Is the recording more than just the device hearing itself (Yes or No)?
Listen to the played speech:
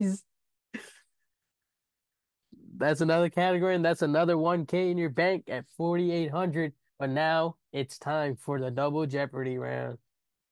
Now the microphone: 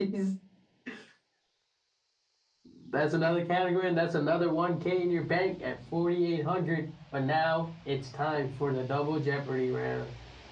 No